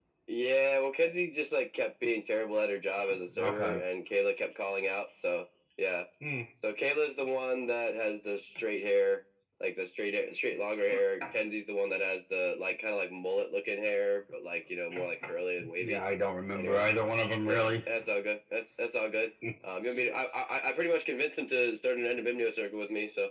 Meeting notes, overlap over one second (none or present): none